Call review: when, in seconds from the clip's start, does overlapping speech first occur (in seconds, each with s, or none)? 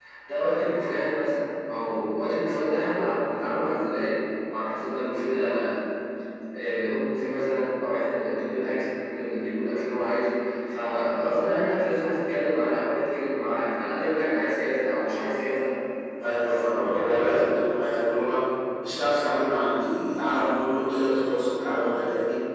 16.2 s